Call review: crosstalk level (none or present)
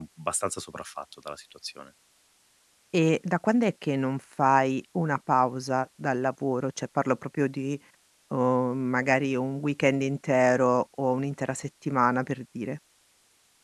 none